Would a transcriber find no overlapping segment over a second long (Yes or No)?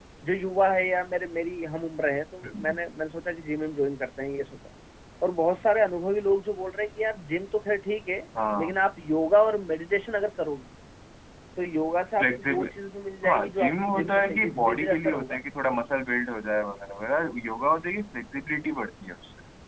No